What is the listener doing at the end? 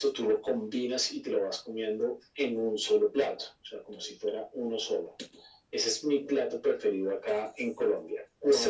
taking over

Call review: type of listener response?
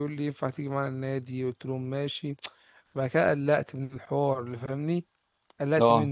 listening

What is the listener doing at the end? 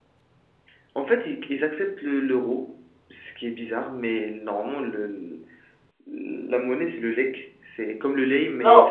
taking over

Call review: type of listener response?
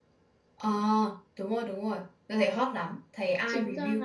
taking over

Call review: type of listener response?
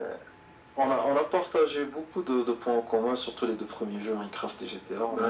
taking over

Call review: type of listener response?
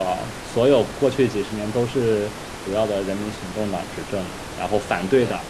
listening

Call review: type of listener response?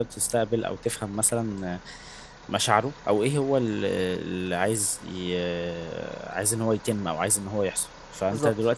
listening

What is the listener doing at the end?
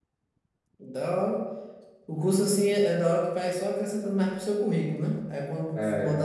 listening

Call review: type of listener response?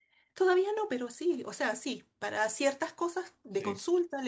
listening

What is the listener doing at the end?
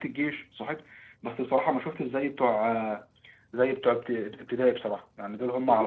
taking over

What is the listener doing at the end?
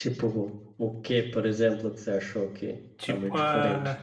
taking over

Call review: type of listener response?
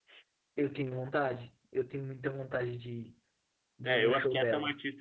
taking over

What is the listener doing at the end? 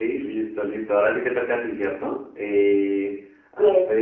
listening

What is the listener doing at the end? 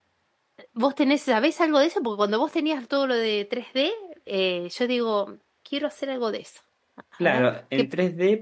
taking over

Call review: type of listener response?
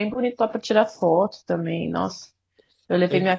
listening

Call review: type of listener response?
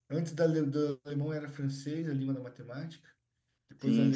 listening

